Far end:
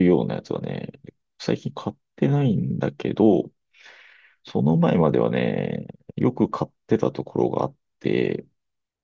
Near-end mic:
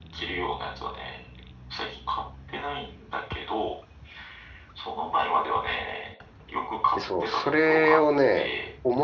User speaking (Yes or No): Yes